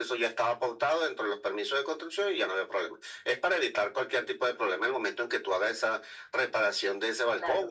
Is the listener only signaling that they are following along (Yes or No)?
No